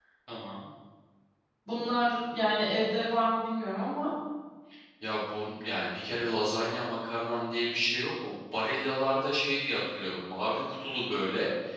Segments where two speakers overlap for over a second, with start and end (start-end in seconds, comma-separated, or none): none